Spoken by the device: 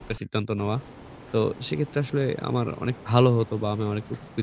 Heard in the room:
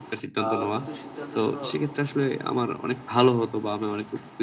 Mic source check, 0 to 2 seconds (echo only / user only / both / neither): both